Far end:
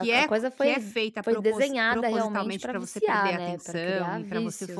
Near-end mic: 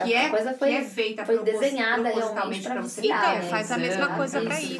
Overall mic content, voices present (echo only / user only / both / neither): both